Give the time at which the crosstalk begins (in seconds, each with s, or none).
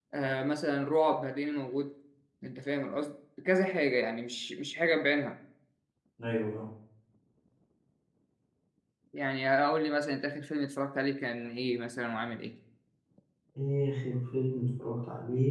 none